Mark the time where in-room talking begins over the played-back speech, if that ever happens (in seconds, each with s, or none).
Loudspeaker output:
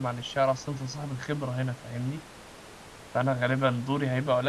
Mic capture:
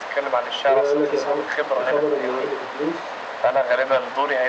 0.7 s